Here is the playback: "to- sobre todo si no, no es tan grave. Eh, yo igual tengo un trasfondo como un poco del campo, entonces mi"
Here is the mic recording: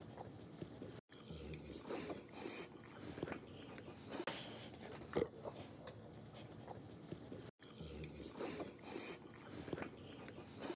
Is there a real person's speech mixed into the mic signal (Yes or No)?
No